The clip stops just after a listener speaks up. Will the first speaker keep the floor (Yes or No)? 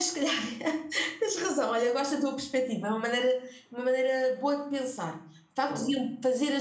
Yes